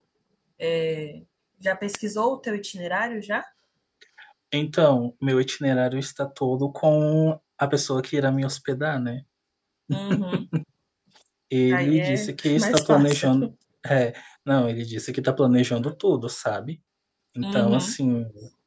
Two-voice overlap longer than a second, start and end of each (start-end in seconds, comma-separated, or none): 11.7-13.5